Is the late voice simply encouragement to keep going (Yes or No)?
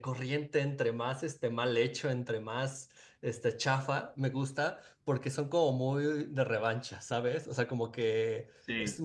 Yes